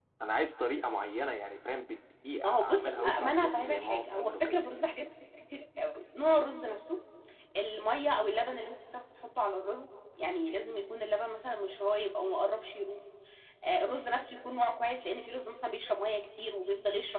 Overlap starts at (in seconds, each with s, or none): 2.4 s